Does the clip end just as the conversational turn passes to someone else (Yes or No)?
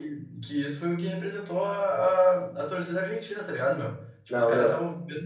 No